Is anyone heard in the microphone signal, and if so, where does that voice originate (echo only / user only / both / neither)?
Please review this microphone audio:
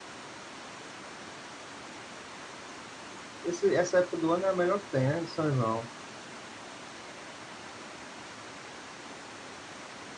user only